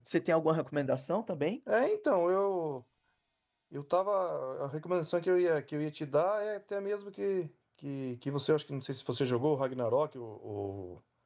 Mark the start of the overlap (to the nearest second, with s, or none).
none